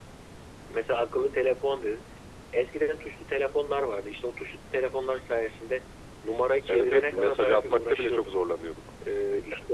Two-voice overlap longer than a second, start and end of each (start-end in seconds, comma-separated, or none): 6.7-8.3